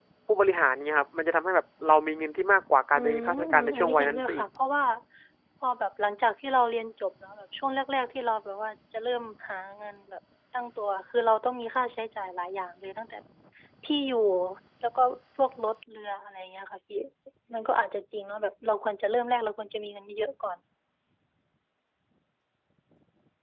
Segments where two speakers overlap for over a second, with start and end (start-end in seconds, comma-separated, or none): 2.9-4.5